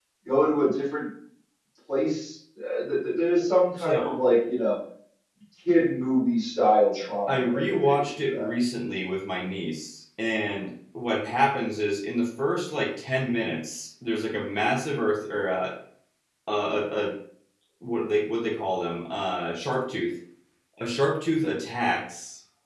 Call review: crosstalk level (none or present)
present